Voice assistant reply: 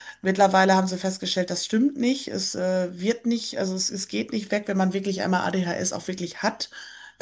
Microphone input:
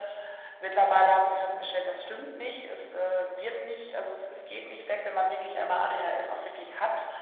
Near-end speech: none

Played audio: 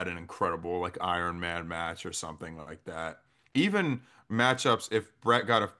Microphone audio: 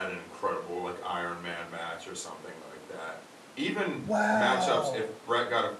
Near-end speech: present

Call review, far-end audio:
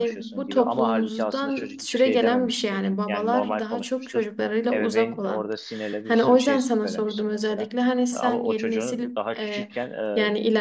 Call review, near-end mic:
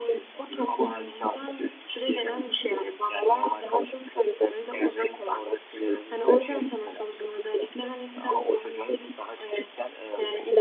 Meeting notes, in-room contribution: none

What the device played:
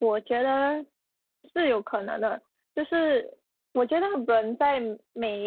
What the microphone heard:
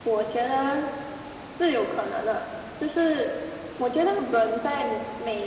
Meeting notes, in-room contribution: none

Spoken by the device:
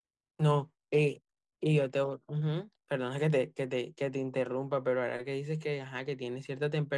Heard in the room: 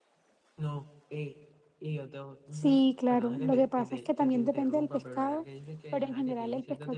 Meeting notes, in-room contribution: present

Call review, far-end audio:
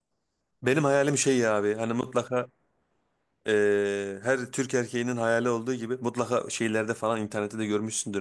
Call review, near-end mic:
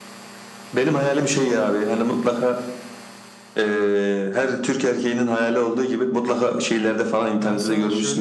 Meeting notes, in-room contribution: present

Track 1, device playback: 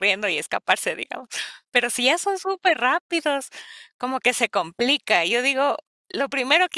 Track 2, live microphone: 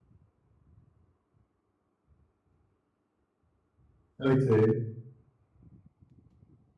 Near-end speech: present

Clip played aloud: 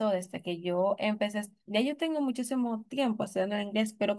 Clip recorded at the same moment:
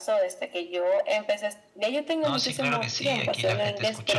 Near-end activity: present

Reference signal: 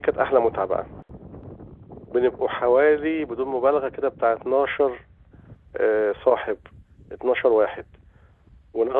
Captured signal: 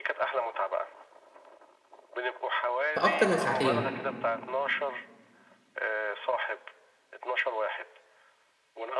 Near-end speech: present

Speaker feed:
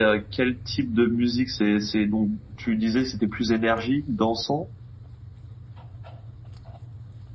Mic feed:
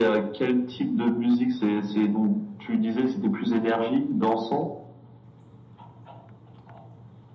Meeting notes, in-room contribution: none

